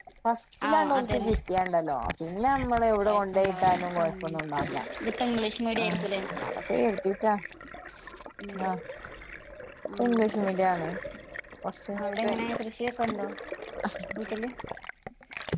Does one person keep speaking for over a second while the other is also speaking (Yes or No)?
Yes